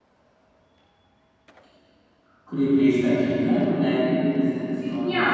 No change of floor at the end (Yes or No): No